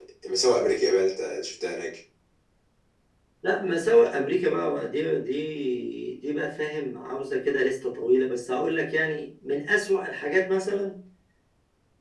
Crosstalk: none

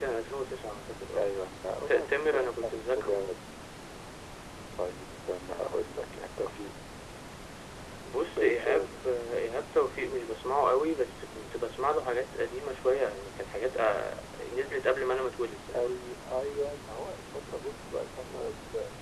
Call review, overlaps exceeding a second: present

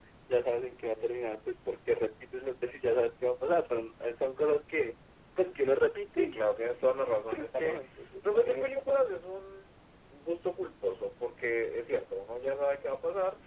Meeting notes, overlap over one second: present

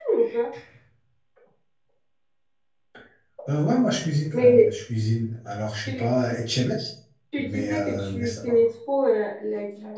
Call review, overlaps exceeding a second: present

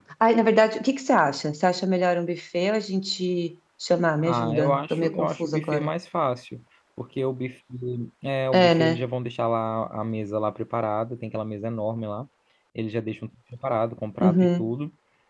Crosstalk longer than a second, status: present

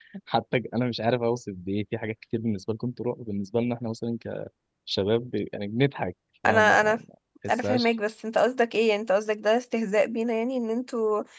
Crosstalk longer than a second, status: none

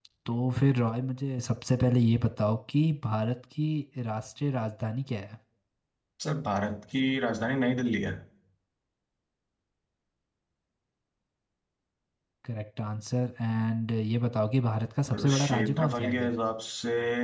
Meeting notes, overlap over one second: present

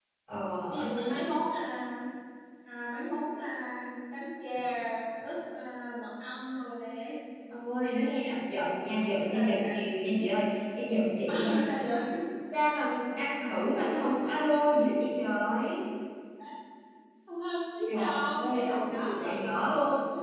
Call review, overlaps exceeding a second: present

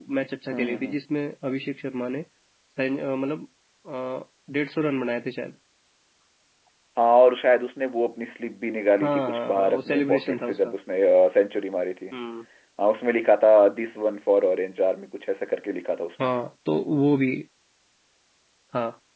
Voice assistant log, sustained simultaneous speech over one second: present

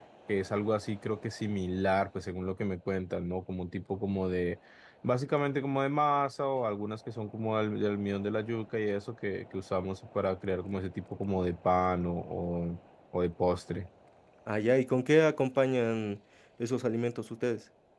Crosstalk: none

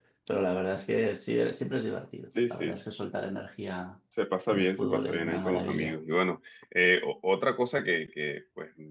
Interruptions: present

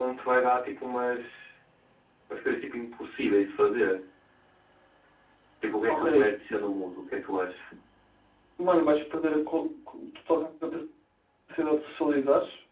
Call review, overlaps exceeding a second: none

